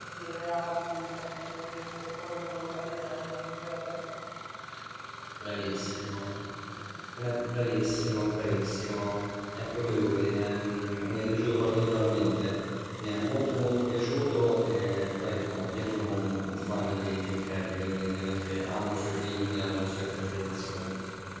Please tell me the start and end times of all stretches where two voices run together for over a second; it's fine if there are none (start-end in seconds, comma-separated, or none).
none